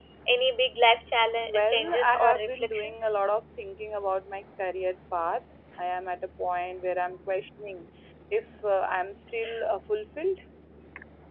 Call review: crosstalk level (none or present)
present